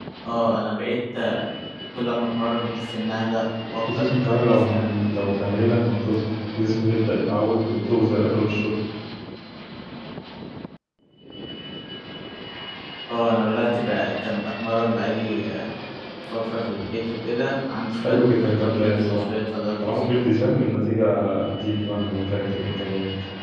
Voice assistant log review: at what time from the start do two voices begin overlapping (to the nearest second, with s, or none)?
4 s